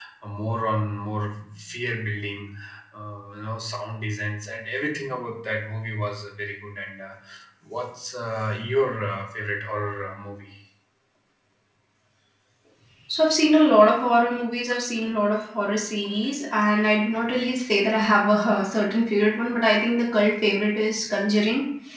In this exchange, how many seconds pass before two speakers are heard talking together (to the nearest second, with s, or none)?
none